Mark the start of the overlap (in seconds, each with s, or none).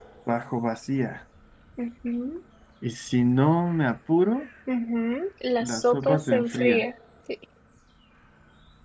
5.6 s